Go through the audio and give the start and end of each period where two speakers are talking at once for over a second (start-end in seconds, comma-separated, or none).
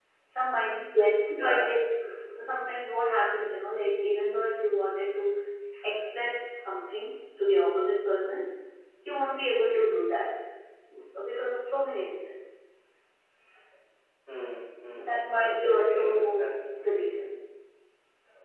14.9-16.5